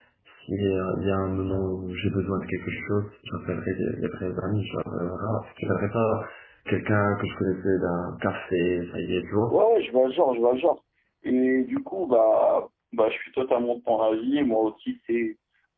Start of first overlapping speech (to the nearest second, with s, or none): none